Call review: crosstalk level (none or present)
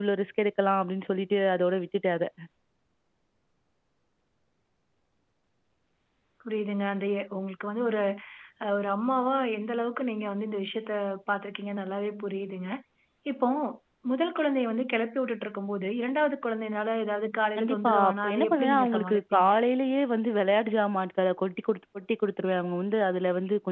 present